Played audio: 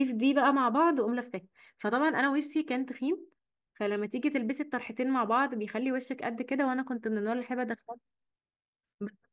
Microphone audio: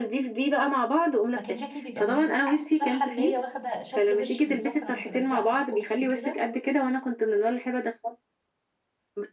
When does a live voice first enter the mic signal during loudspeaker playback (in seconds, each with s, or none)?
1.3 s